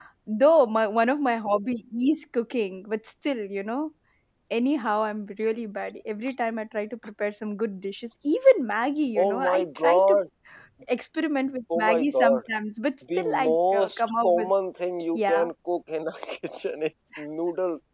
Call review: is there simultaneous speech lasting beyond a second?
Yes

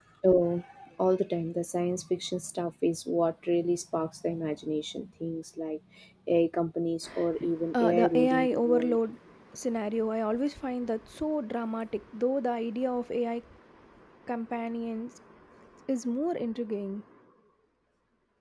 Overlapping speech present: Yes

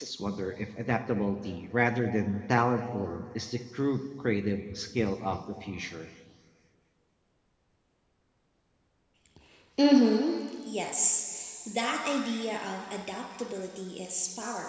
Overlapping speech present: No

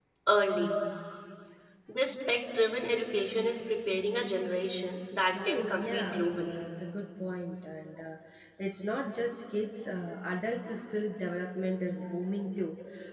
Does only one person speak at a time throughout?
No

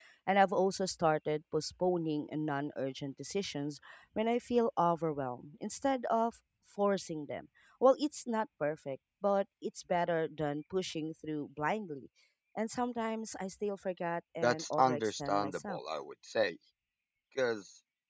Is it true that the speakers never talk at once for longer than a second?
No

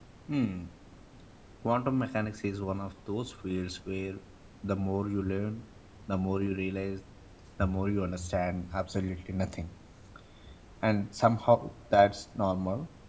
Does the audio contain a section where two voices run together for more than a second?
No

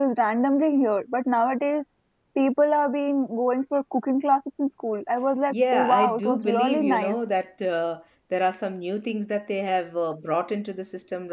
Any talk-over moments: Yes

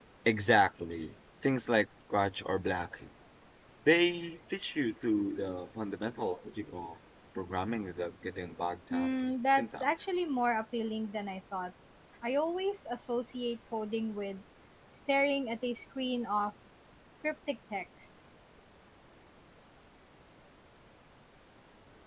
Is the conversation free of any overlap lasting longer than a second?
No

